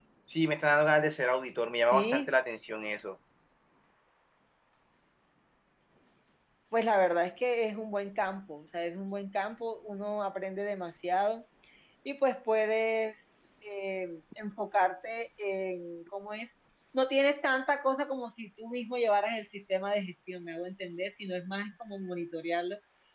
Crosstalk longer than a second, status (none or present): none